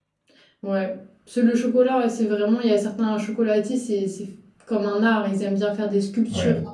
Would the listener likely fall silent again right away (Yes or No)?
Yes